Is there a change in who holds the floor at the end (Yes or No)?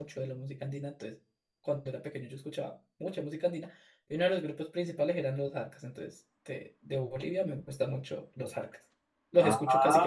Yes